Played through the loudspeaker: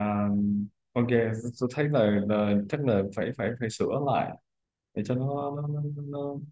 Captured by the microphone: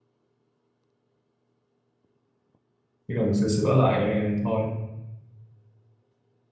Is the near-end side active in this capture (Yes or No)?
Yes